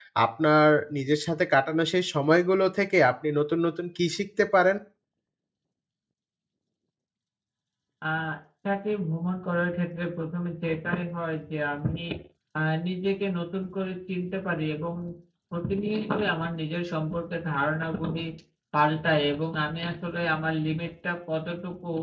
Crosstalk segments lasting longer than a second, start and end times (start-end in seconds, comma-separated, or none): none